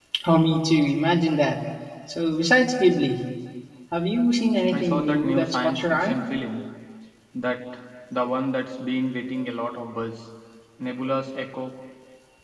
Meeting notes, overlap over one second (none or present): present